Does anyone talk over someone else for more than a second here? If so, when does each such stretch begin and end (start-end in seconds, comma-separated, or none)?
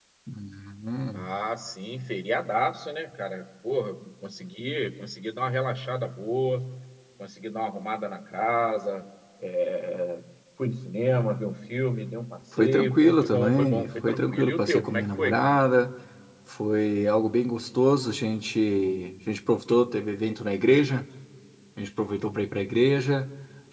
12.6-15.5